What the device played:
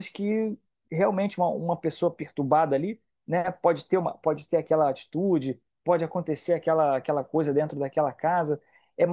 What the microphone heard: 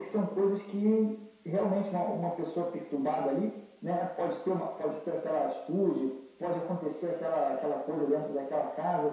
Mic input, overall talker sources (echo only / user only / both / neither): echo only